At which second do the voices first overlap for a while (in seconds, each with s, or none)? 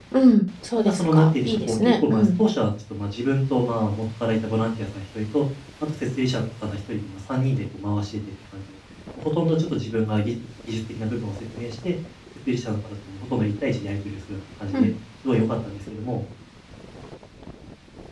0.8 s